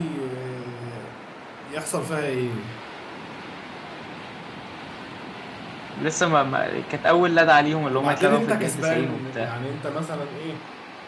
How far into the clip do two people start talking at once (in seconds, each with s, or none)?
7.9 s